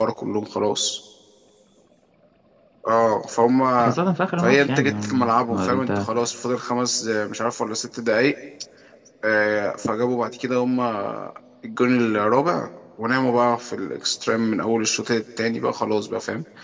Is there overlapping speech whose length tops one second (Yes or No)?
Yes